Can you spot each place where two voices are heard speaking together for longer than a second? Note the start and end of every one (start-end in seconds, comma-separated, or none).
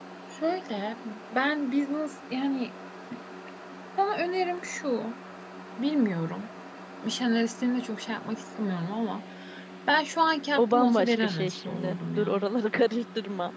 10.6-12.3